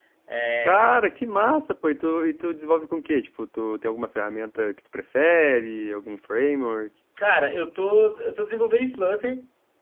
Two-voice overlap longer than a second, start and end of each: none

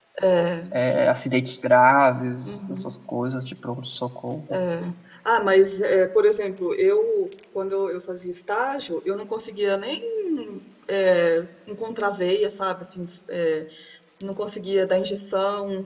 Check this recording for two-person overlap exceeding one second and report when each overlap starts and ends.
none

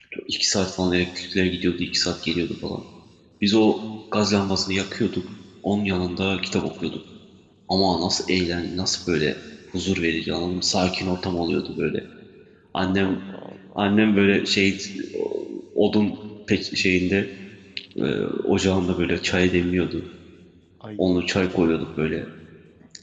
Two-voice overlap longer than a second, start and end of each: none

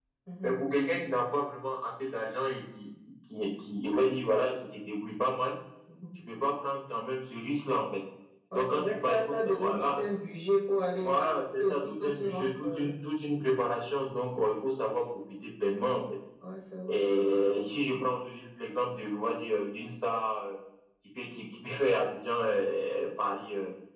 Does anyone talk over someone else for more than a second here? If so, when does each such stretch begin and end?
8.6-10.0, 11.6-12.9

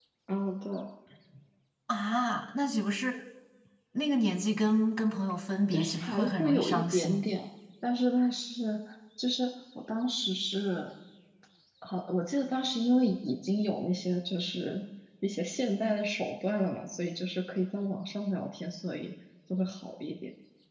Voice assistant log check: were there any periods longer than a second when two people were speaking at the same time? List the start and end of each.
5.7-7.3

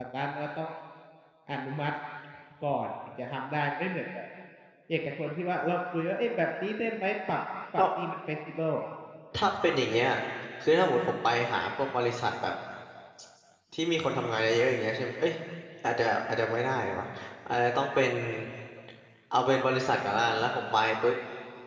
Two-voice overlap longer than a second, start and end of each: none

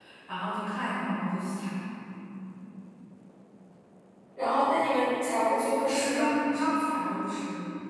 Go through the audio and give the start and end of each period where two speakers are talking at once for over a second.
none

